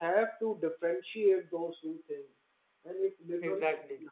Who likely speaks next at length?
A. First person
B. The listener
A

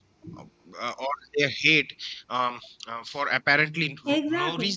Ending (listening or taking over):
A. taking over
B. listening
B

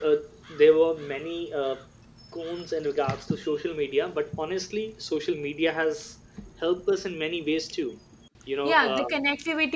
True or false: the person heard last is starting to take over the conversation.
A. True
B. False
A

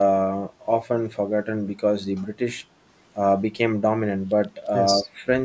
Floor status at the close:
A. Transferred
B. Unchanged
B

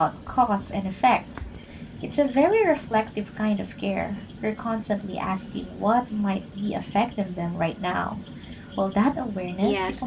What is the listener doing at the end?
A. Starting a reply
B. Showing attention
A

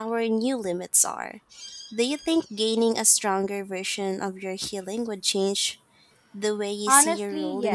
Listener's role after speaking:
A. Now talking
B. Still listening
A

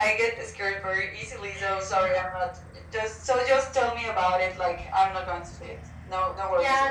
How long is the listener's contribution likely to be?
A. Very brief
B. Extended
B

